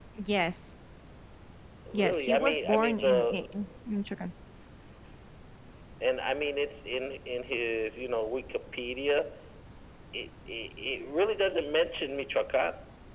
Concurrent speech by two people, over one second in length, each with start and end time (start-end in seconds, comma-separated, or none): 1.9-3.4